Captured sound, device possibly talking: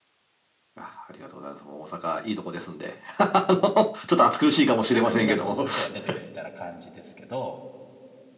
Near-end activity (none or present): present